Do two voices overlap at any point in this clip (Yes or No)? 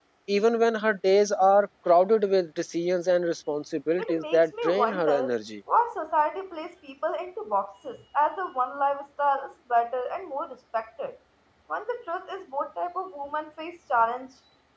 Yes